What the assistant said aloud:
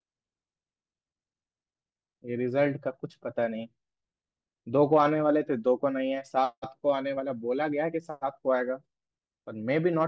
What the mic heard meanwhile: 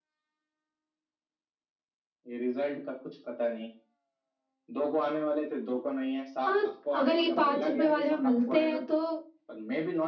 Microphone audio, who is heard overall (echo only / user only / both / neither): both